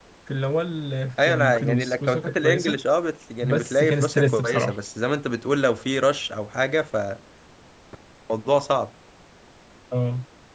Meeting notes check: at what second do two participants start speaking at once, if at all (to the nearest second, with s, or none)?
1 s